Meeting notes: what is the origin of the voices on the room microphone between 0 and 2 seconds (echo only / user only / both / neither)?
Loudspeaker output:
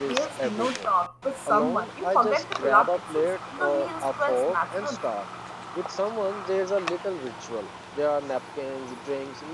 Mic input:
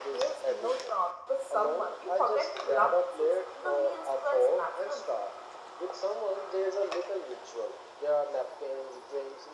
echo only